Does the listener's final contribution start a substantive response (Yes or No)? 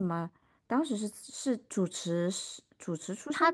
Yes